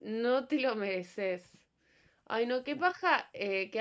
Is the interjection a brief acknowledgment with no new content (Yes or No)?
Yes